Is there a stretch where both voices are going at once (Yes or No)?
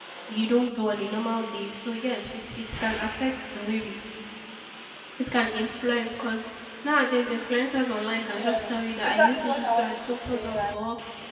Yes